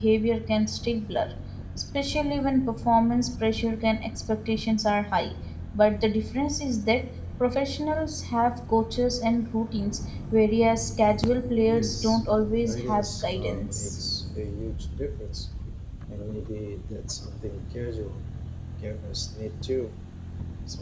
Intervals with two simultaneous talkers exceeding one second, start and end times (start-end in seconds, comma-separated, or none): 12.6-13.9